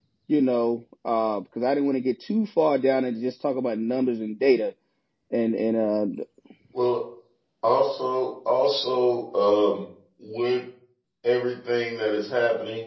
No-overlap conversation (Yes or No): Yes